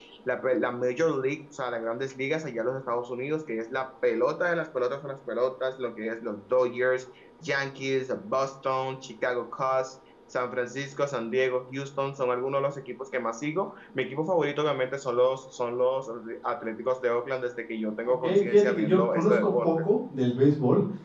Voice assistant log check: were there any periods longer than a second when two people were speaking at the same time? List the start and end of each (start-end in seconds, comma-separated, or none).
18.0-19.7